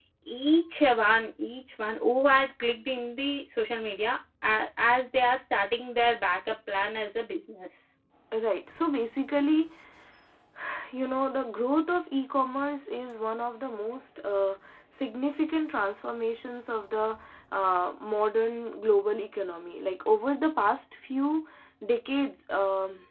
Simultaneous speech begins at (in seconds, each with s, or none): none